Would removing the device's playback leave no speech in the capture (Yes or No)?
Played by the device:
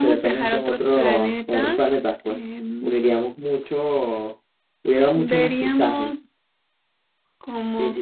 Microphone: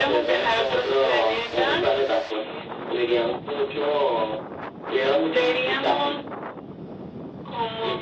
Yes